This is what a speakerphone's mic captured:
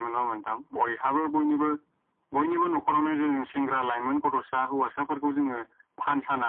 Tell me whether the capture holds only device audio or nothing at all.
Yes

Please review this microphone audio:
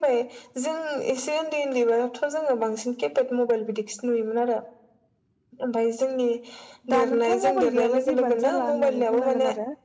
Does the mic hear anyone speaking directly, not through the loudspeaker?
Yes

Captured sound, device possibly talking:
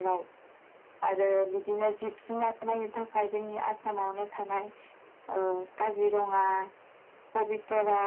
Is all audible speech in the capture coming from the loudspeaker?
Yes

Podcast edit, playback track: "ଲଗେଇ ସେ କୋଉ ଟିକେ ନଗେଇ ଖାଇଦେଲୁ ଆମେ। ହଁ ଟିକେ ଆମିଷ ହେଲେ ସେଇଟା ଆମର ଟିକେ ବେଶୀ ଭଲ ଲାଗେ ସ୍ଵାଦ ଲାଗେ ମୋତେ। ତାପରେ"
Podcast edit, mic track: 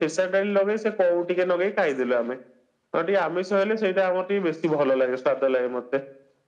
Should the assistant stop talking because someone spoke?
No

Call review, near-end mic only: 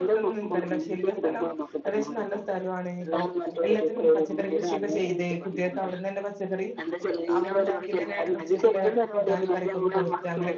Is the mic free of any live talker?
No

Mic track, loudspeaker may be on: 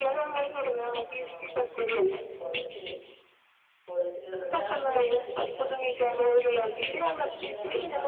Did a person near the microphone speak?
Yes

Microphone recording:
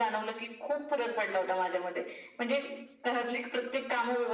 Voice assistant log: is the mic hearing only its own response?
Yes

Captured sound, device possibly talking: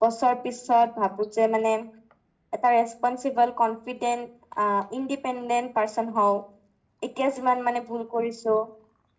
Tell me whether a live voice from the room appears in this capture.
Yes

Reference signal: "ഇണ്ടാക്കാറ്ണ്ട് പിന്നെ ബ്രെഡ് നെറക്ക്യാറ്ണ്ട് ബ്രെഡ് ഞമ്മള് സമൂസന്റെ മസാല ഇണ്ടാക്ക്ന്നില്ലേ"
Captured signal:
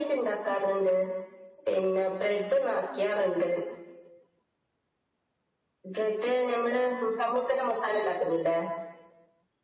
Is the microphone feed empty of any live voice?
Yes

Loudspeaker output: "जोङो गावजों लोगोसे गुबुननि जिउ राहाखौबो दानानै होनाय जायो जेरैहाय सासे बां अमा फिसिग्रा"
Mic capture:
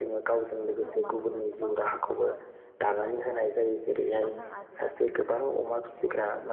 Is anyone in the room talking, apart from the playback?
Yes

